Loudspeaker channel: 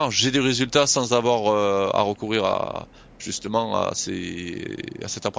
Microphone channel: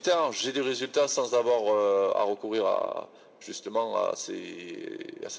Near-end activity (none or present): none